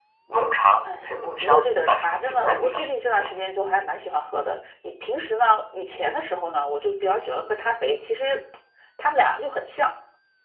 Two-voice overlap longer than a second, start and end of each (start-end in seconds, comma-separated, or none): 1.0-3.3